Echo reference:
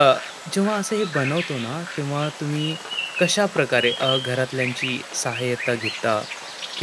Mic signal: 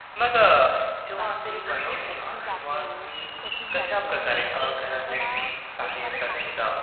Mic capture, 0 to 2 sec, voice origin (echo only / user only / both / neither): both